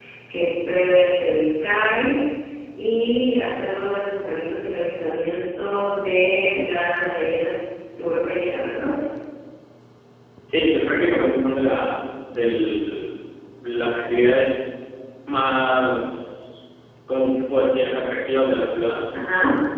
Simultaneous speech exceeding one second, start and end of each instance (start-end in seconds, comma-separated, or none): none